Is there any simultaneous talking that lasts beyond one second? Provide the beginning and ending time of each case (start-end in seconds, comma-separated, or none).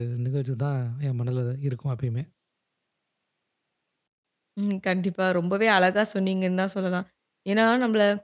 none